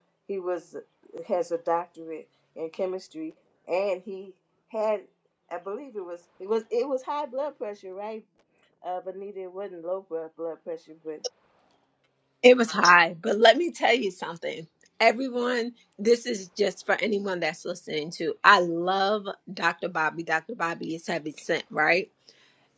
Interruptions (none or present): none